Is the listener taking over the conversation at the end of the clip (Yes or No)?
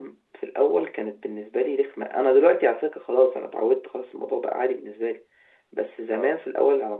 No